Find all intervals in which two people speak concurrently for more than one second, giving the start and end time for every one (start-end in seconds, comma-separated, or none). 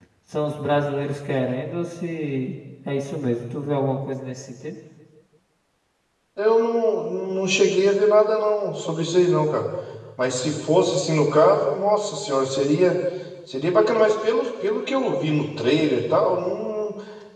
none